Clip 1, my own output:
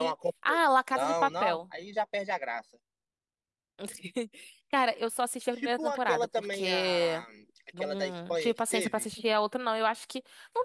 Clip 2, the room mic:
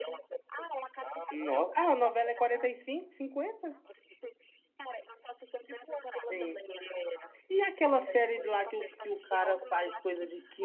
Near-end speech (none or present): present